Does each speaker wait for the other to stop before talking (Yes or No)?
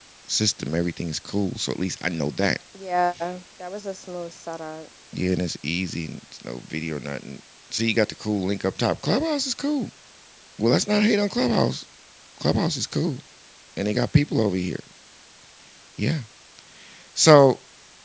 Yes